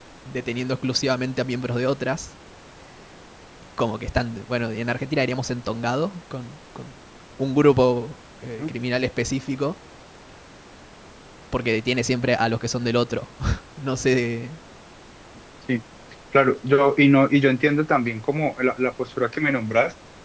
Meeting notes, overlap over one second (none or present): none